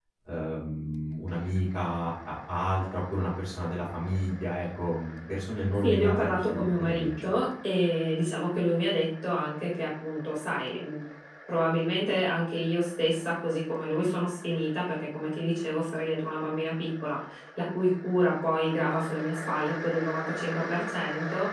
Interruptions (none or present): present